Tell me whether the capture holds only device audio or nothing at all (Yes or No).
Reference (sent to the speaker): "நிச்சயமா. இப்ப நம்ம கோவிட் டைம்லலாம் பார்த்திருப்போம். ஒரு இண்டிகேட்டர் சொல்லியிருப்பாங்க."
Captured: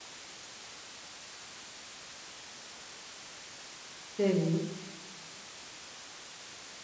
No